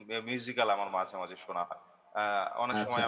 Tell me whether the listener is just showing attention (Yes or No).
Yes